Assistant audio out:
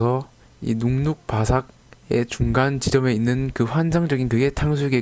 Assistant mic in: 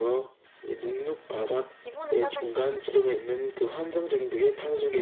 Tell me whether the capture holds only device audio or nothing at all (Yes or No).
No